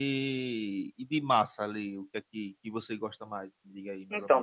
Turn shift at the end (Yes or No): Yes